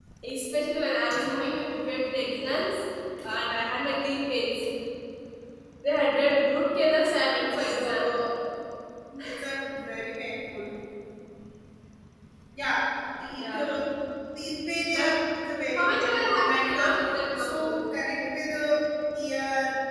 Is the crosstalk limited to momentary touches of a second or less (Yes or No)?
No